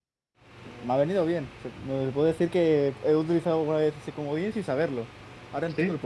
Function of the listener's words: taking over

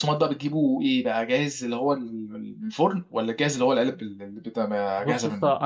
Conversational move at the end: taking over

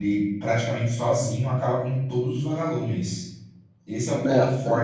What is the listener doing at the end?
listening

